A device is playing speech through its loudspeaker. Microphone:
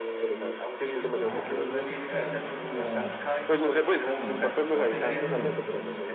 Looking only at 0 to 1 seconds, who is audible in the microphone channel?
echo only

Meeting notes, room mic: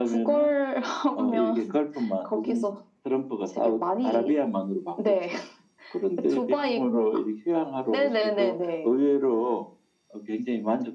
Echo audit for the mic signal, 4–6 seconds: echo only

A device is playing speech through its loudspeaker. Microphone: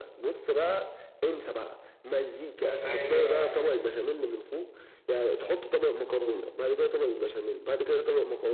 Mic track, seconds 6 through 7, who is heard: echo only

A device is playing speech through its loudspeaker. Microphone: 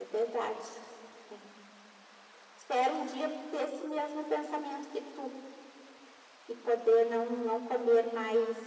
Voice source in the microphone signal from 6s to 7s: echo only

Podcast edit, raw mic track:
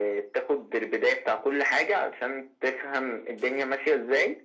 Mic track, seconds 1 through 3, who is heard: echo only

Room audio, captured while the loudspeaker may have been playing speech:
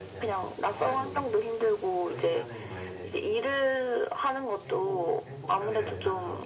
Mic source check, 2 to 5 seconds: both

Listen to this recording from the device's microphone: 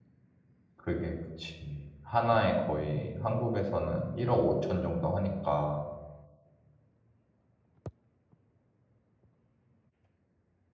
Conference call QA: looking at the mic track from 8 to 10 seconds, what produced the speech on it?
neither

